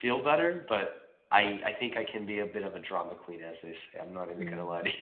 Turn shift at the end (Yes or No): Yes